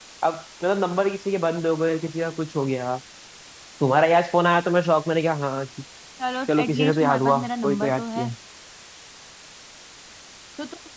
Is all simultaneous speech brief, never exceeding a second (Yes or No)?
No